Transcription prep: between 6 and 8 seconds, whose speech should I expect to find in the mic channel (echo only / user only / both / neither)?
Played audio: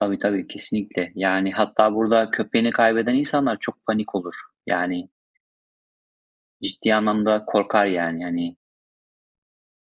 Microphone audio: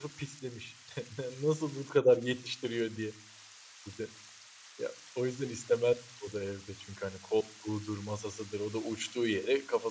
user only